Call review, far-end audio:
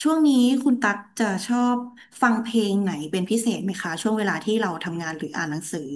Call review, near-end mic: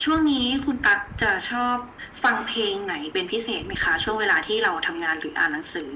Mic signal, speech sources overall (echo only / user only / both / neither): echo only